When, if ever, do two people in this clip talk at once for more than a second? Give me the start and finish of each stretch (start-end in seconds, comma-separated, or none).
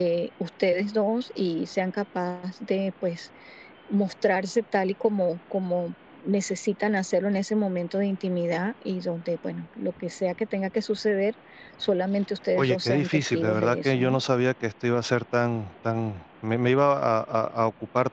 12.6-14.2